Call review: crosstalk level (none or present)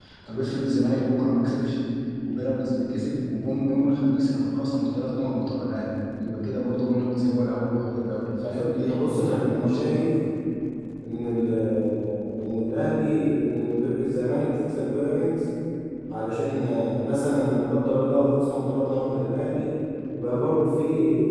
present